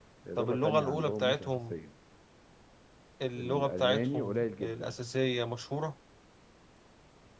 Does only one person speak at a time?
No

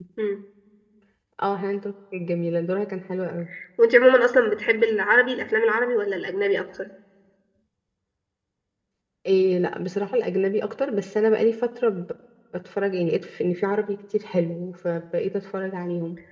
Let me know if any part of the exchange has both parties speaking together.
No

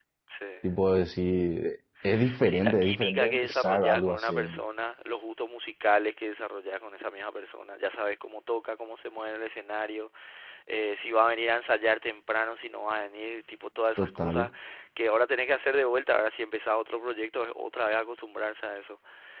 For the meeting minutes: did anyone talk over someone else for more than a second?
Yes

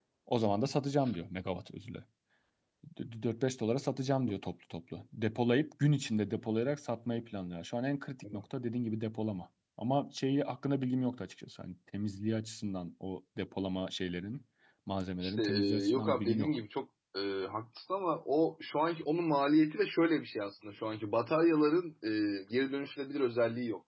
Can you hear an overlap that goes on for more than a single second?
Yes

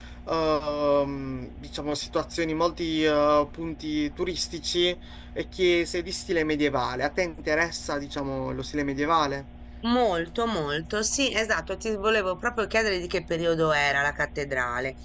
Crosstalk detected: No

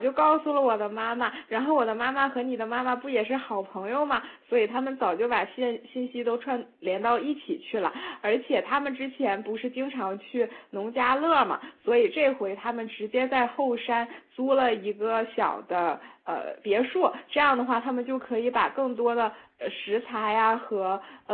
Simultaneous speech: No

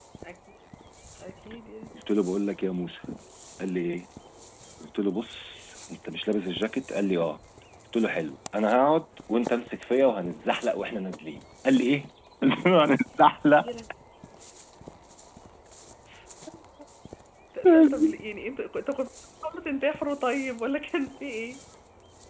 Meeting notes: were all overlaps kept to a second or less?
Yes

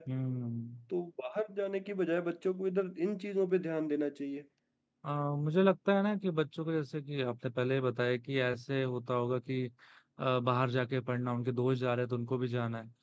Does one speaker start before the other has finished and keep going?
No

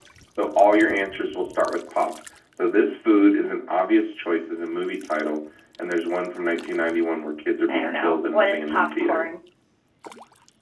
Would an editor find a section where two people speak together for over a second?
Yes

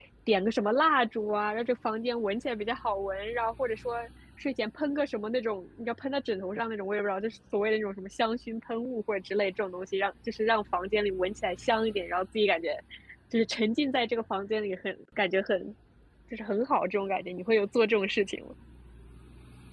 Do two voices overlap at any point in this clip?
No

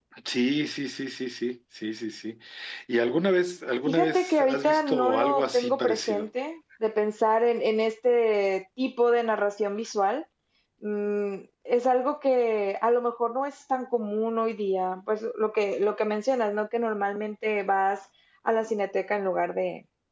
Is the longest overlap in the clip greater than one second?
Yes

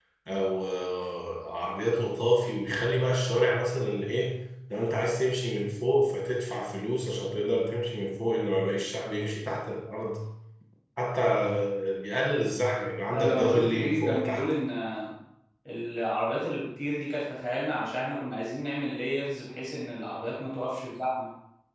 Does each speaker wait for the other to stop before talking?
No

